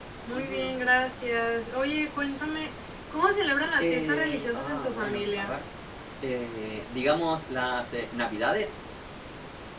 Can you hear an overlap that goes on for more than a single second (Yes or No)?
Yes